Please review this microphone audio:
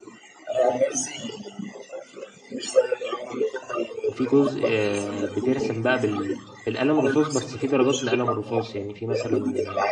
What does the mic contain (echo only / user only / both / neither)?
both